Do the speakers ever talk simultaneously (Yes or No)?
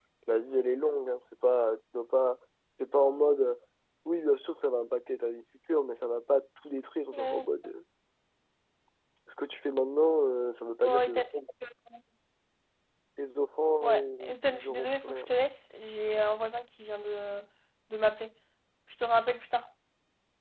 Yes